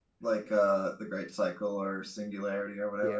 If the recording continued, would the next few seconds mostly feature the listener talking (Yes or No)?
Yes